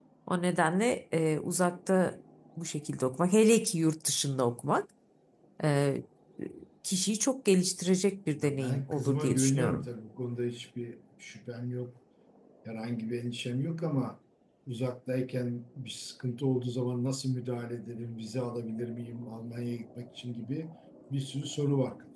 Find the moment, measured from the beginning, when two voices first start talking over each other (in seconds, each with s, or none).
8.4 s